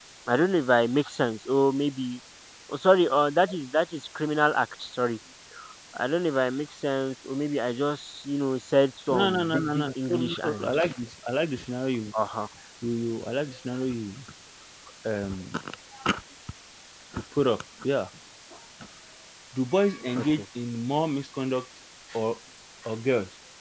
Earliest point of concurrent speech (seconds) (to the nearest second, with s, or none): 9 s